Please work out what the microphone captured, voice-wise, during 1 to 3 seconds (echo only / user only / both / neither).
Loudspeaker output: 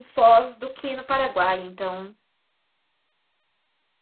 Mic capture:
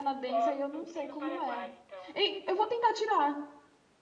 both